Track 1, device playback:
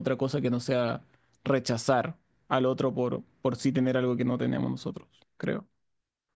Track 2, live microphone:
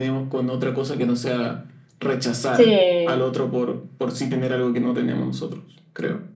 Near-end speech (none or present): present